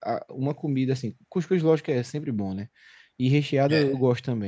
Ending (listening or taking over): listening